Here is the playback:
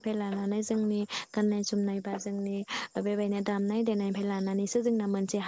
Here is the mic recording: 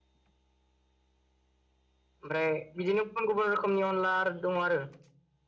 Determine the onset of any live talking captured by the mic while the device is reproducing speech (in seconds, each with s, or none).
2.2 s